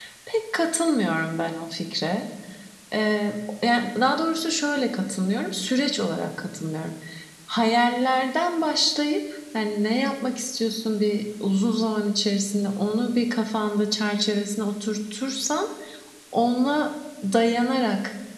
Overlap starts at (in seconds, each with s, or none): none